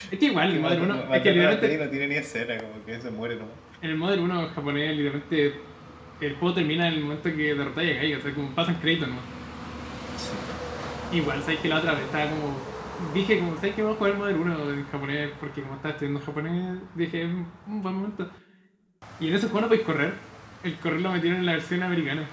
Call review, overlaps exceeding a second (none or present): present